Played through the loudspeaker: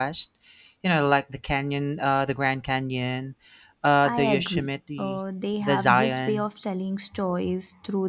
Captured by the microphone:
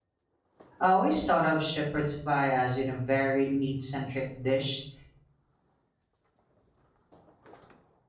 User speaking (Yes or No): Yes